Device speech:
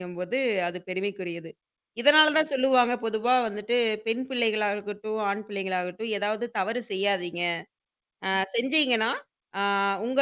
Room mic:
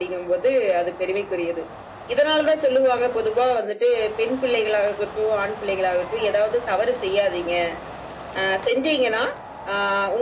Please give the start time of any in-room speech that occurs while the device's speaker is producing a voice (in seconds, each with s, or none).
none